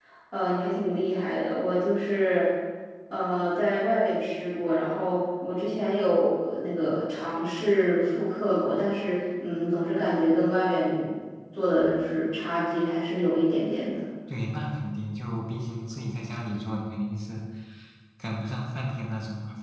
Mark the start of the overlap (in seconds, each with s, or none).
none